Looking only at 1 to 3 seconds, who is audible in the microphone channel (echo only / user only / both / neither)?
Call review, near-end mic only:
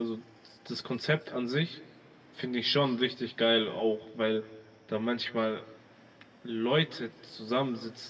user only